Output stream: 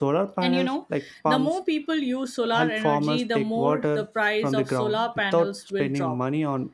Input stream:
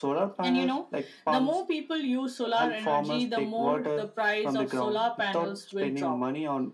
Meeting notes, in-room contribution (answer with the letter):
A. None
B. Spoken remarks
A